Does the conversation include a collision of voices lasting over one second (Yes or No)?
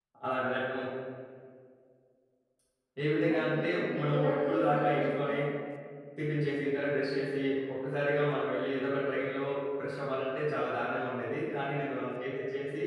Yes